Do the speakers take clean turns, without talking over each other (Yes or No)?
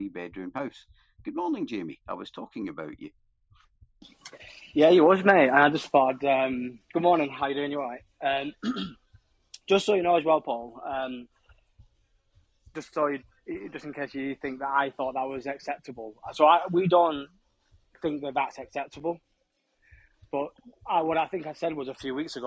Yes